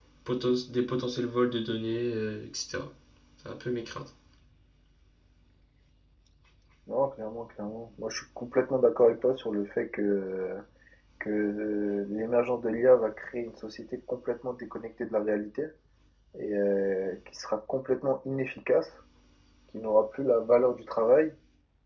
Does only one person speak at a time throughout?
Yes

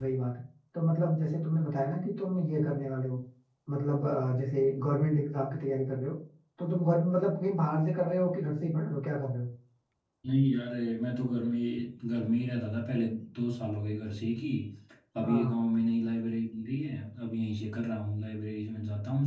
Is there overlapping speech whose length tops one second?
No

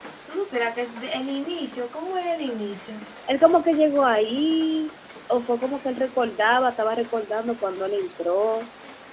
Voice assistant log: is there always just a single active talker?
Yes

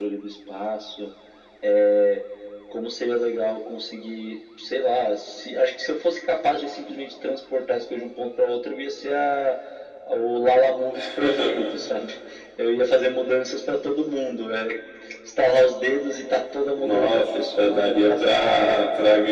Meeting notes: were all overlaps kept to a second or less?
No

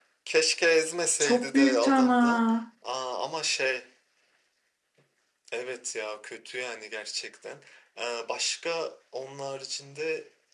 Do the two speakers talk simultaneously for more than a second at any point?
Yes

